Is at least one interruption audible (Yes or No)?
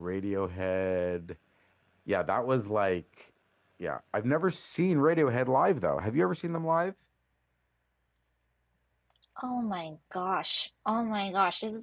No